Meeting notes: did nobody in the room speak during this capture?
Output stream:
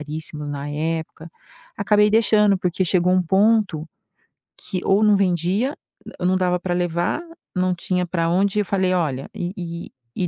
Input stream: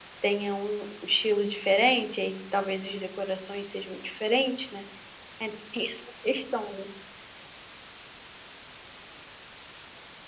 No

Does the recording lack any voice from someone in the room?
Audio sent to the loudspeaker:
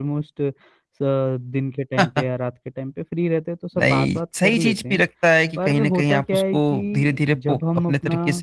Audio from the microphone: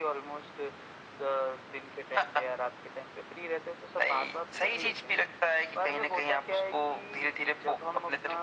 Yes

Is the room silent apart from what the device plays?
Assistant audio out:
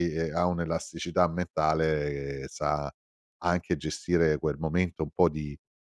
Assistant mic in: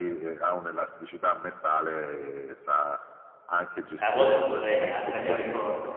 No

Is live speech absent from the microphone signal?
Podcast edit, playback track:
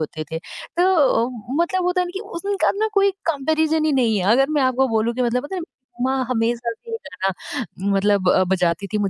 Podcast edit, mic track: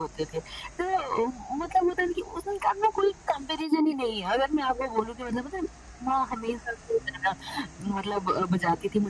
Yes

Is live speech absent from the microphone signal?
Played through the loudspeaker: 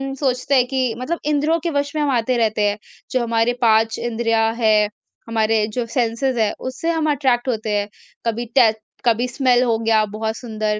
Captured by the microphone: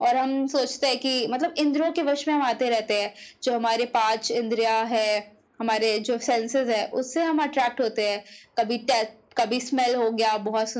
Yes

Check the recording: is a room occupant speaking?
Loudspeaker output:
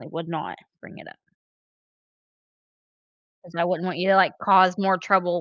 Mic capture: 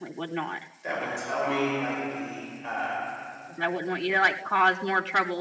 Yes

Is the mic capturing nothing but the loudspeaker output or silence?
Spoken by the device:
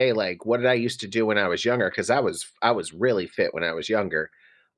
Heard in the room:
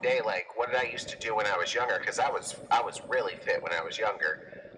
Yes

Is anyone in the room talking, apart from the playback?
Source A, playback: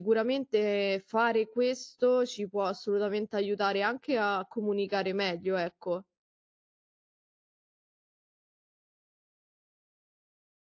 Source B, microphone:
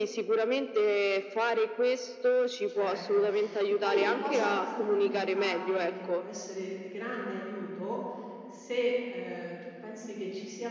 Yes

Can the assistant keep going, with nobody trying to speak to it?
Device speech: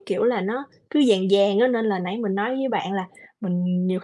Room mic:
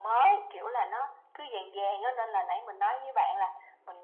Yes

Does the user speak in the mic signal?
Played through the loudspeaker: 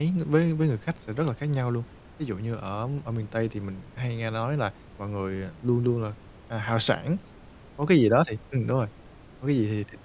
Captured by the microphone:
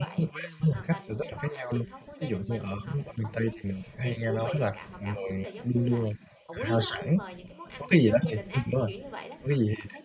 Yes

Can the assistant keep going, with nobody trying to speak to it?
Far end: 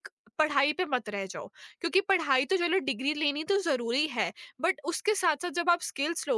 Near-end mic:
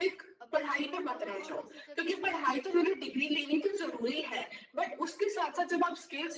No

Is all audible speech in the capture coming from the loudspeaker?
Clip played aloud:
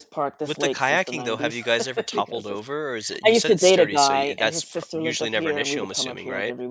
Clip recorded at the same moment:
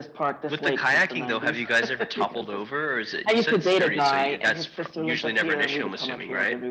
Yes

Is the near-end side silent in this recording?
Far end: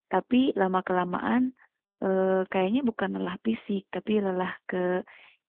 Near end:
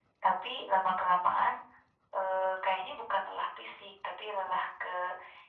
Yes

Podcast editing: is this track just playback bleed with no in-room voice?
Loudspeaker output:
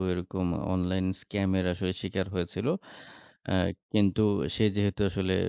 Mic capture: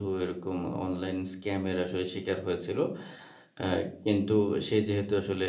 Yes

